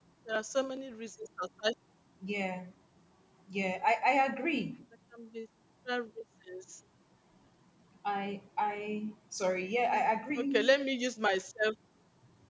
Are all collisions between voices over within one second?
Yes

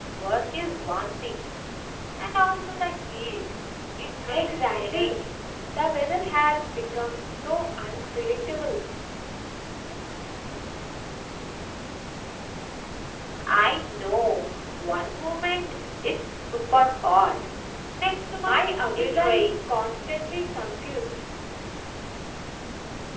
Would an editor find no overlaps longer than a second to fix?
No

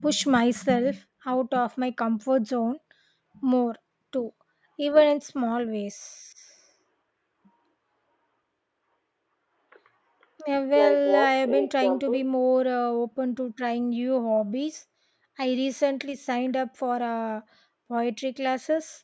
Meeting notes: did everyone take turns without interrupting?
No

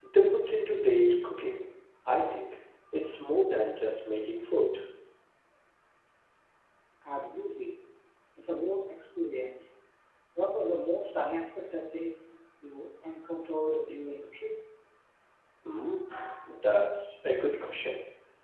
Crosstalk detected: No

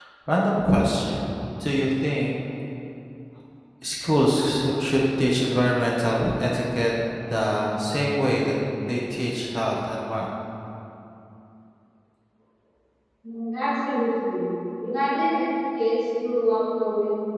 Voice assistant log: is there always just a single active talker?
Yes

